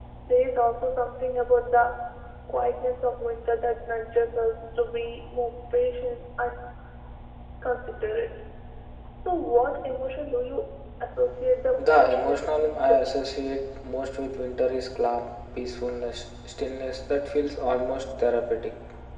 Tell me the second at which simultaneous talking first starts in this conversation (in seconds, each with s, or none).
11.8 s